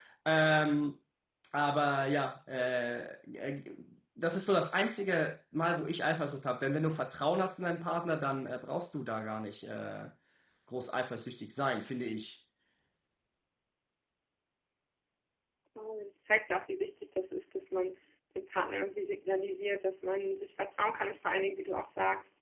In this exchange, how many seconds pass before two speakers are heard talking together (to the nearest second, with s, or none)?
none